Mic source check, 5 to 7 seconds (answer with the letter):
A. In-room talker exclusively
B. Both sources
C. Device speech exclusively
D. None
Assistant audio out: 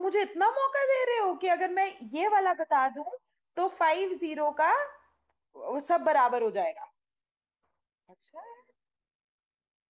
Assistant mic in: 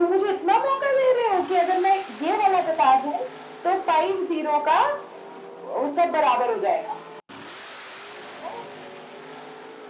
C